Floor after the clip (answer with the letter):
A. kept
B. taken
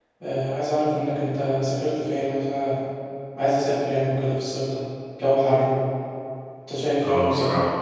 B